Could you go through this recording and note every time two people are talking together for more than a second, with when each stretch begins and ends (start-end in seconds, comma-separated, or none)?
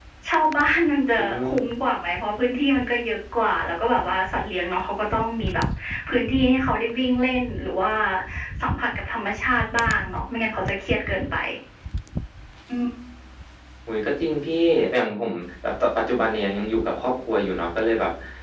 none